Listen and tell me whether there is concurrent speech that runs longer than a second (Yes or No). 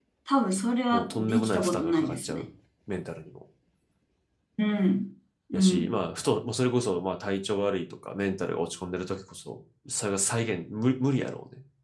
Yes